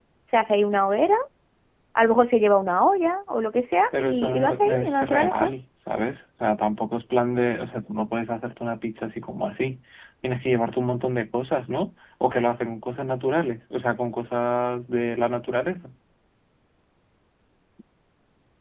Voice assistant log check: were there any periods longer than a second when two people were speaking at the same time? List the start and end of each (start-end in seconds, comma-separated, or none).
4.0-5.5